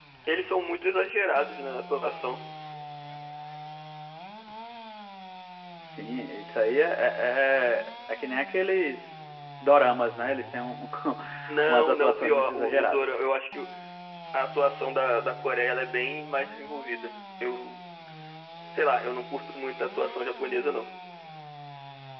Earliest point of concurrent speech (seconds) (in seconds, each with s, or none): 11.7 s